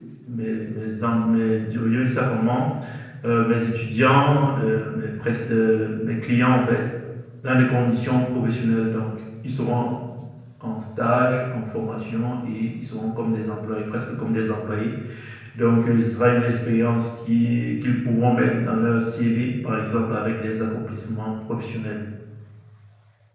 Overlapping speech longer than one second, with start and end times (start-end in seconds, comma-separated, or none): none